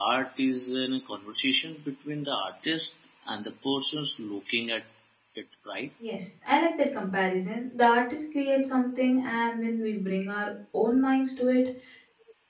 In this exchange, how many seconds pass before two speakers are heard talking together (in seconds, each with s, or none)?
none